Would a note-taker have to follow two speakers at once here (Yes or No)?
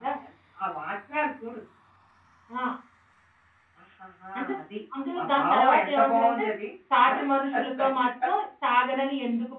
Yes